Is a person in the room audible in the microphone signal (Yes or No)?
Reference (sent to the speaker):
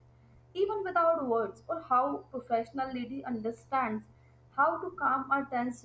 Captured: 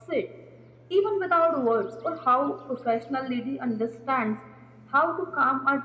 No